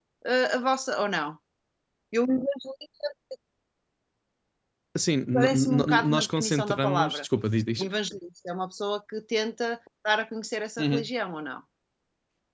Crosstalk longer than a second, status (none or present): present